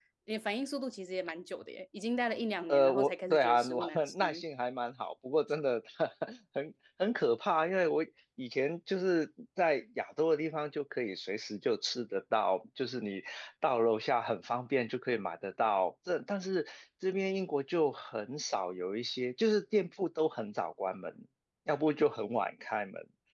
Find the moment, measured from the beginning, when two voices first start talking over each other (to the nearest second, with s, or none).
3 s